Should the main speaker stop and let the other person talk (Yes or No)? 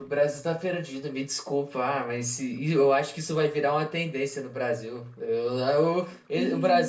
No